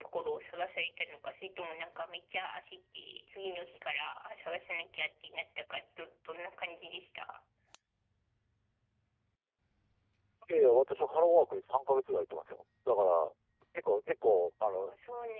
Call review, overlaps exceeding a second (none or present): none